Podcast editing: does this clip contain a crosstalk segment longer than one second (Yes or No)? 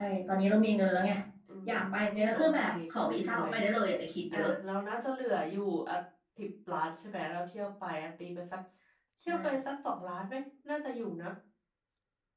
Yes